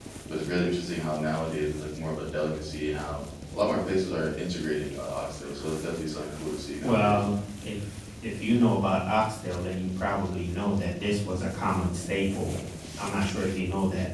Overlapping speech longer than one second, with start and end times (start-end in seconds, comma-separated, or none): none